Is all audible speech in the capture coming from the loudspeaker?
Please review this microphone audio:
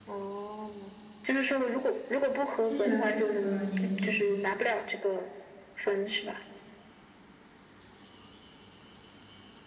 No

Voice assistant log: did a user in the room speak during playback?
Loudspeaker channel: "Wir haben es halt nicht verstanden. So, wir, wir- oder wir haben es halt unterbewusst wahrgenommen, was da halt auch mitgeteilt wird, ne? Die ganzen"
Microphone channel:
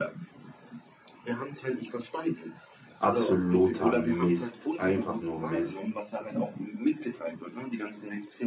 Yes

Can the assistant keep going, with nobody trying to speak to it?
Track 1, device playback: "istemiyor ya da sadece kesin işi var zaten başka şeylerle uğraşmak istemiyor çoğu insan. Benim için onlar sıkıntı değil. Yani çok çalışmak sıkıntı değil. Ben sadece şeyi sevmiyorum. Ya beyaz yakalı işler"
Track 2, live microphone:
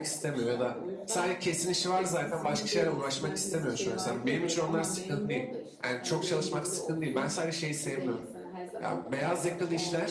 No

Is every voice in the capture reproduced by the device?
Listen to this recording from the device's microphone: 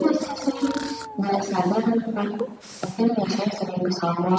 Yes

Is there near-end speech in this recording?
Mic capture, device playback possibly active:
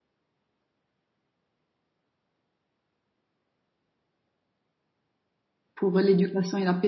Yes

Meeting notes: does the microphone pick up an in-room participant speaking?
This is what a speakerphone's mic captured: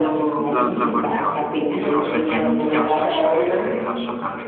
Yes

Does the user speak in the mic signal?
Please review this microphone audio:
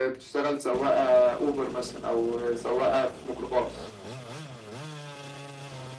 No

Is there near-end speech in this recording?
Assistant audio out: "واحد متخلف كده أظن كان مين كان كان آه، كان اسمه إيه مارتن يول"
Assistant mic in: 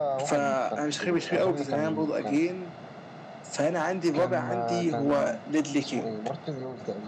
Yes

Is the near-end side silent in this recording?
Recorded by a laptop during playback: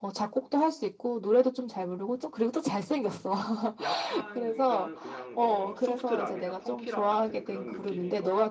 No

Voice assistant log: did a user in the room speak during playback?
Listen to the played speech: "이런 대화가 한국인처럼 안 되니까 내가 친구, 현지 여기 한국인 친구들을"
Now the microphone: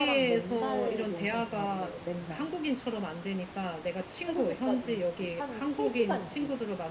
Yes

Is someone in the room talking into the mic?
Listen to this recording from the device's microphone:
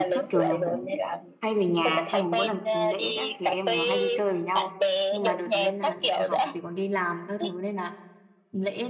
Yes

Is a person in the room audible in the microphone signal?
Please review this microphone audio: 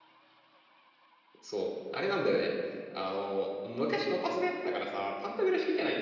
Yes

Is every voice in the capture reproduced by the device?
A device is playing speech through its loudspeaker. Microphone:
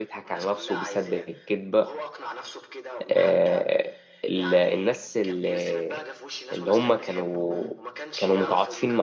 No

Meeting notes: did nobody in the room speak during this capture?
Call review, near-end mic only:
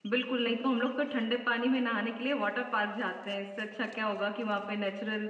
No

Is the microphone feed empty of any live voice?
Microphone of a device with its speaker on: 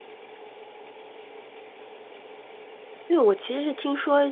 No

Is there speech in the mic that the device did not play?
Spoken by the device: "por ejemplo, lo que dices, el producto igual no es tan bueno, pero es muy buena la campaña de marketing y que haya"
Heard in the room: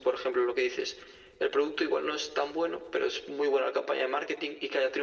No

